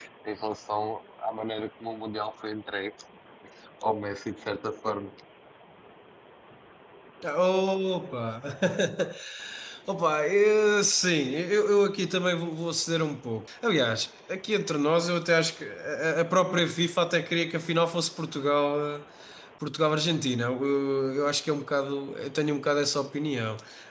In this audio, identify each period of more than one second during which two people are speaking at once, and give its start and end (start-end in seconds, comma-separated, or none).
none